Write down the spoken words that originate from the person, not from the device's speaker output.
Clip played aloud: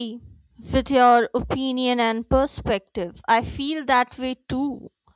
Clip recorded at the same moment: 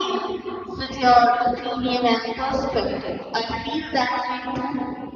none

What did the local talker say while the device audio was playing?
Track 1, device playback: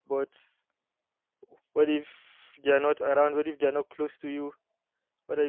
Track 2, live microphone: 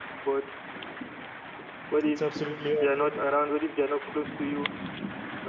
It's absolutely awful.

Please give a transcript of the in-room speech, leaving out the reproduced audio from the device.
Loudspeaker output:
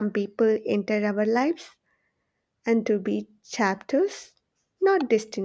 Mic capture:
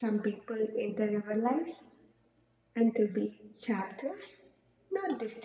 none

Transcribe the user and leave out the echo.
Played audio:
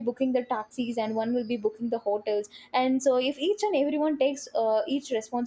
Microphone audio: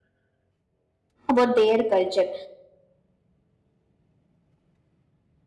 about their culture

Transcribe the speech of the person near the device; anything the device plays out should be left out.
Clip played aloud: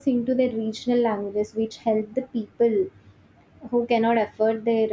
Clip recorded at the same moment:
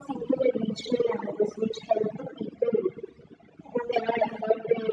none

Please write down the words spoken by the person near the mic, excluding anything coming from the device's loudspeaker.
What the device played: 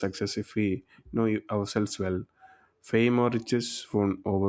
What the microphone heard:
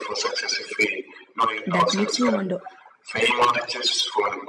that makes me wonder

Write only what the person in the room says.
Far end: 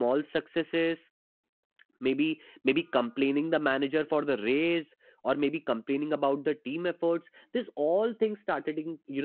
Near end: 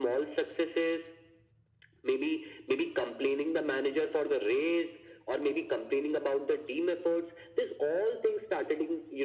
none

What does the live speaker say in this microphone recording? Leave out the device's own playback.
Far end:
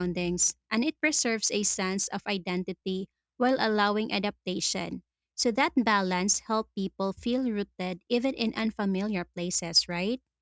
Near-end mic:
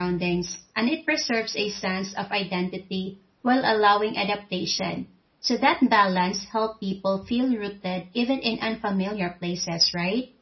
none

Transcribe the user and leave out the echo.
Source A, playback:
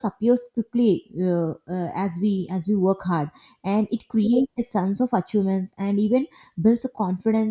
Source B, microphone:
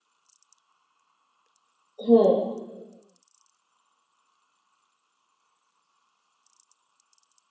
hmm,

